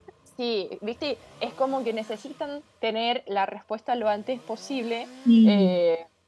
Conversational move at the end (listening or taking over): listening